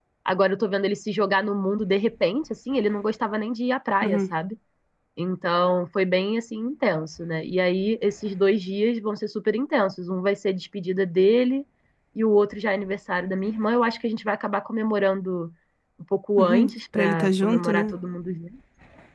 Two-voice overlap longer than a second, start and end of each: 16.4-17.9

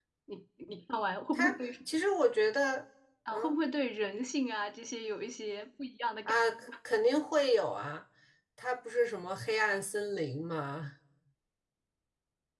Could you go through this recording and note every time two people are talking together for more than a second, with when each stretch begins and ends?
none

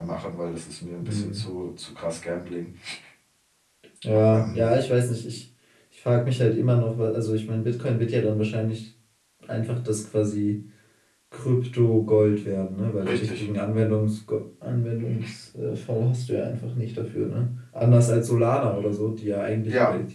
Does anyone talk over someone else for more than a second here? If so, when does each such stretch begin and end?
none

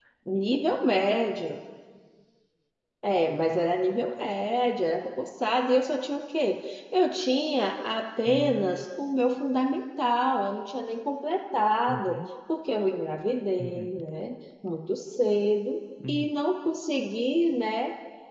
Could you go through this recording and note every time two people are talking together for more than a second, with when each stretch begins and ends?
none

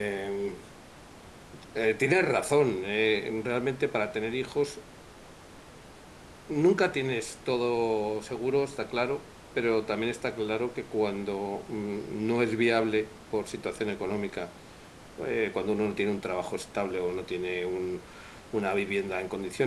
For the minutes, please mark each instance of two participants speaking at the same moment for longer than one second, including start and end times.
none

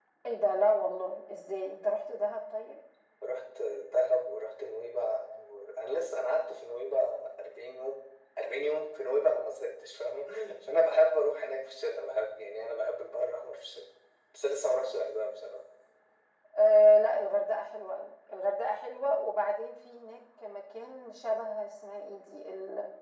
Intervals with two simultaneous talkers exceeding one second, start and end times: none

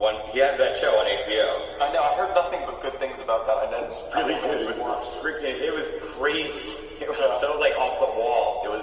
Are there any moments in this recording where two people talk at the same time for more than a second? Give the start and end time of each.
3.8-5.3

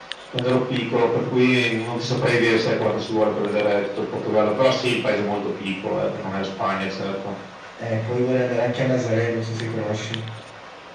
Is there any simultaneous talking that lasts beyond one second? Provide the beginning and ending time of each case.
none

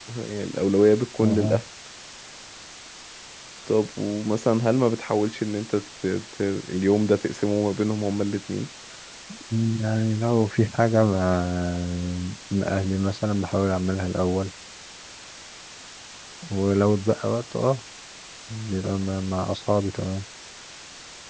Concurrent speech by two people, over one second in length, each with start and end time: none

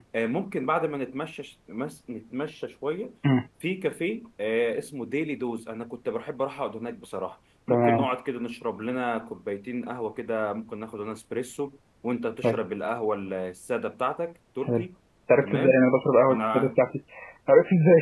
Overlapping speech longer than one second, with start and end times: none

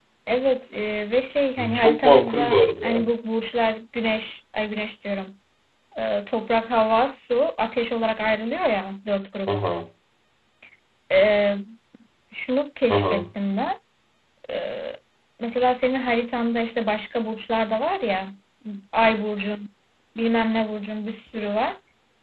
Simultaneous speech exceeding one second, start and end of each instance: 1.7-3.0

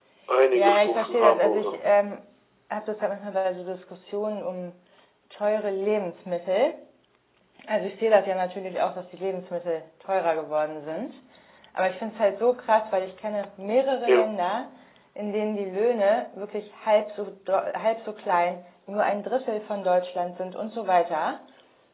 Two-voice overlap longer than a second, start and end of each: 0.6-1.8

